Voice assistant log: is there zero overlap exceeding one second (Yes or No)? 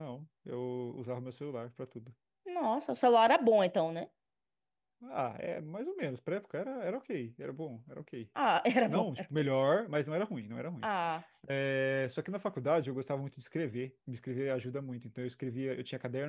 Yes